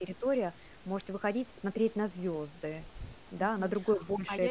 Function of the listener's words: taking over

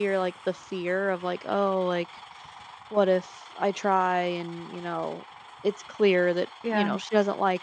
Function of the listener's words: listening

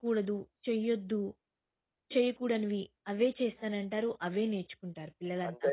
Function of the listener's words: taking over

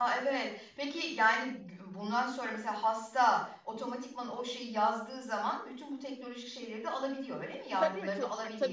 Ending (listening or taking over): taking over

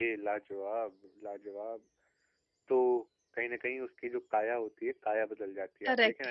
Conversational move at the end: taking over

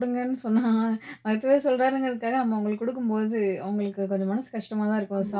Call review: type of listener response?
taking over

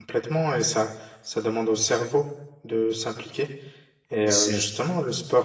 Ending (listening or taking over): listening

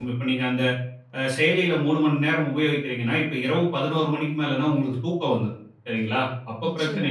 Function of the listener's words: listening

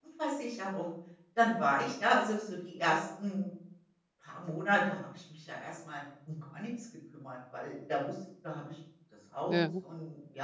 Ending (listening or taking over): listening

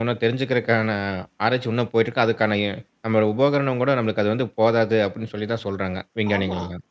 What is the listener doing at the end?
taking over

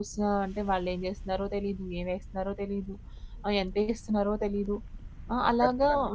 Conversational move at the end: listening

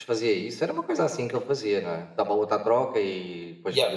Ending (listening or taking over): taking over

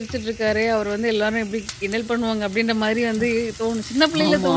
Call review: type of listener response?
listening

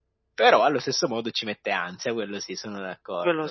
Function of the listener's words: taking over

